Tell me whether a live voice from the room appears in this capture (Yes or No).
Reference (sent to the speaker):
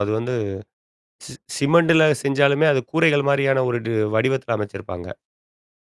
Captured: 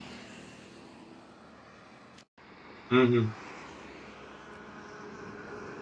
Yes